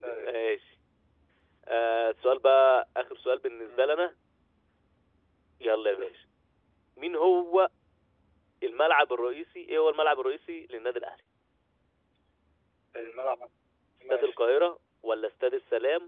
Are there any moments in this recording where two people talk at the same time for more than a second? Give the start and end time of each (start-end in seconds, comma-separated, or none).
none